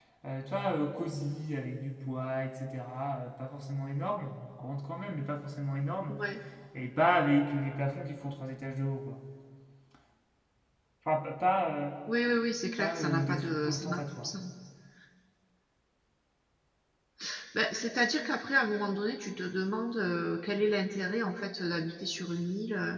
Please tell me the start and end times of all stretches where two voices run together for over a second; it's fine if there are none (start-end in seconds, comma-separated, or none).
12.8-14.3